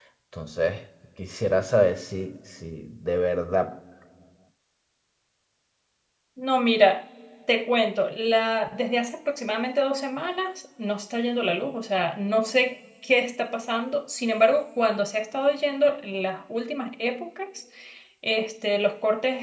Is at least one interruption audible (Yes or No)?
No